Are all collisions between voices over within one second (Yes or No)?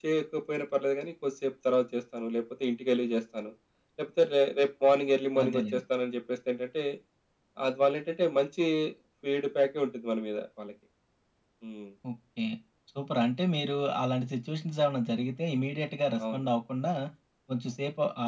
Yes